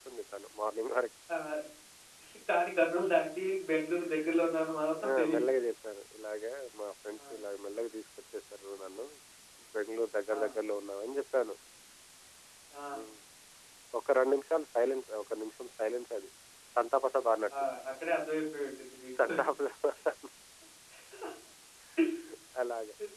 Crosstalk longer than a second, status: none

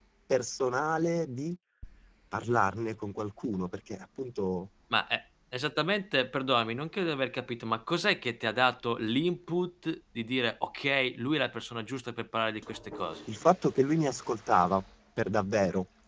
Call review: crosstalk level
none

